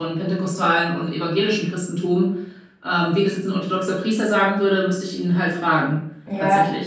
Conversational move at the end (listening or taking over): taking over